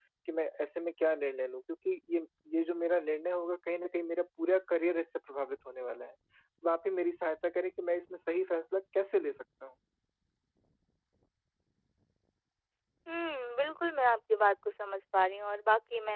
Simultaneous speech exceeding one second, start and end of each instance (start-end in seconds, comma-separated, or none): none